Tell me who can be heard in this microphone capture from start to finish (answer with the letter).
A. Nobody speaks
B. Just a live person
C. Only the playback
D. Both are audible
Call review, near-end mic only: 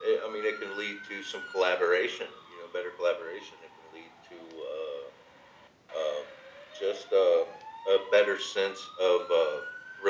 C